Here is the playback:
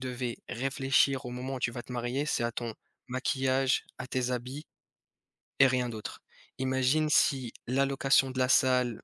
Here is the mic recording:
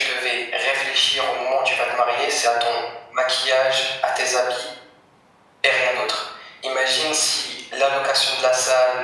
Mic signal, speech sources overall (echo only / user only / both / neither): echo only